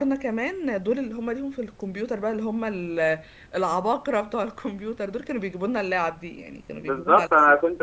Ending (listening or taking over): taking over